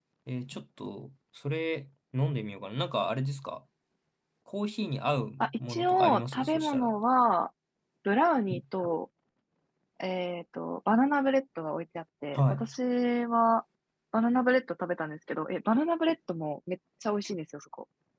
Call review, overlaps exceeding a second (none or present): present